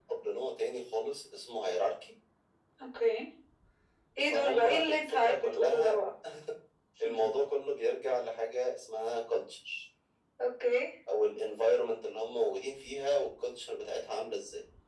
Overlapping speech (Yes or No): Yes